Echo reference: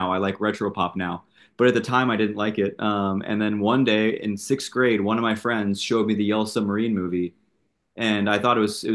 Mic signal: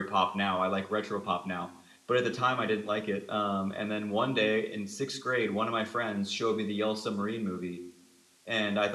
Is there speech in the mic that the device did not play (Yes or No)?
No